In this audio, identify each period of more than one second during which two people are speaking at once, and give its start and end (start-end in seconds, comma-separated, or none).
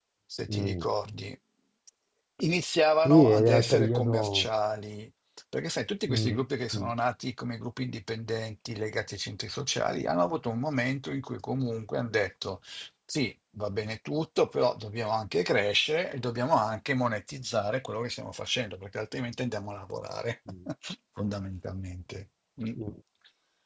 3.0-4.5